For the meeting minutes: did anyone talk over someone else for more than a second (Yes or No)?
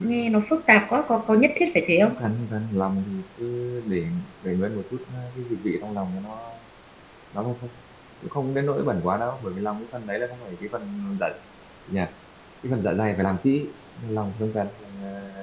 No